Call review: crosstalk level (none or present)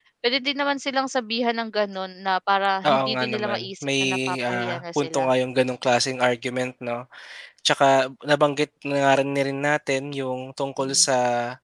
present